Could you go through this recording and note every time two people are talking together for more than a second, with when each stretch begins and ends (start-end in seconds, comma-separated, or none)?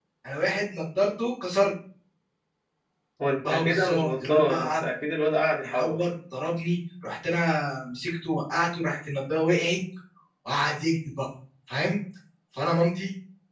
3.5-4.8